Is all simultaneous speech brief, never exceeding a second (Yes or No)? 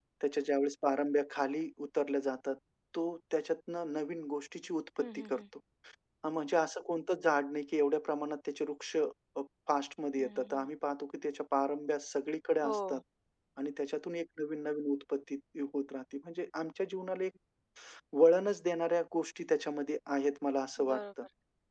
Yes